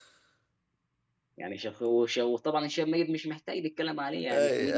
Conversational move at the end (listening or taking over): taking over